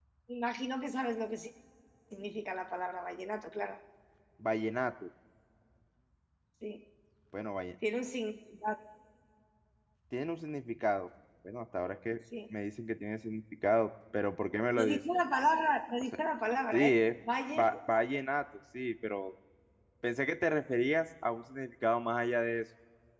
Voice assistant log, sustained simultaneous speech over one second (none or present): none